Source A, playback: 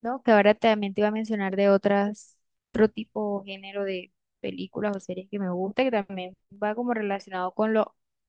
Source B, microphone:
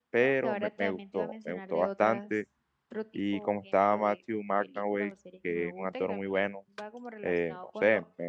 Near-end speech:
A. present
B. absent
A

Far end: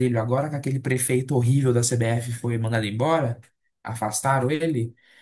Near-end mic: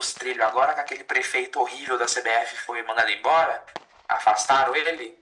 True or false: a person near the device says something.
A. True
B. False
B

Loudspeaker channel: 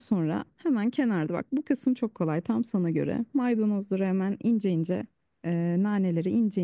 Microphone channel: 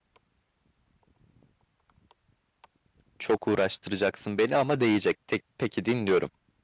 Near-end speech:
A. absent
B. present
B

